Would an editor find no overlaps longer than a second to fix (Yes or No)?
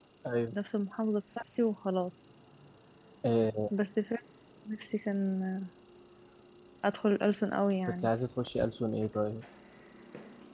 Yes